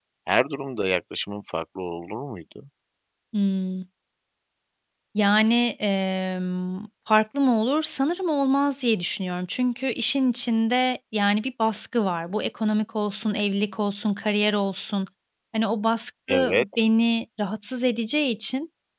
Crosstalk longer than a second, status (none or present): none